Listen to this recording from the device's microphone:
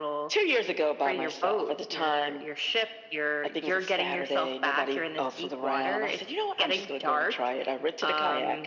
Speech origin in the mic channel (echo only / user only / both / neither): echo only